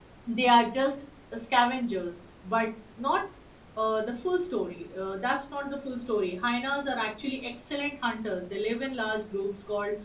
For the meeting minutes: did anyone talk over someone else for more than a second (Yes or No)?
No